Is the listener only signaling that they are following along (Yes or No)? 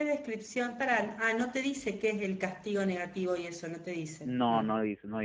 No